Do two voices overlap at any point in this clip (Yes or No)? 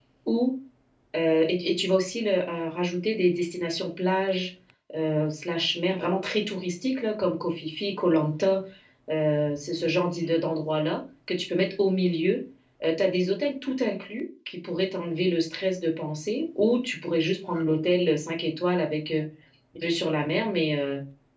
No